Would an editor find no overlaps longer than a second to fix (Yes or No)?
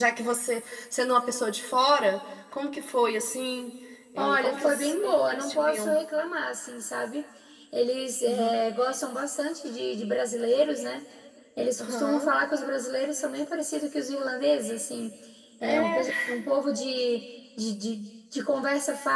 No